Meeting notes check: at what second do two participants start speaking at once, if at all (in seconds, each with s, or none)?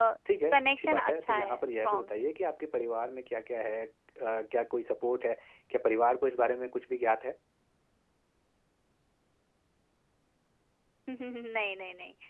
0.6 s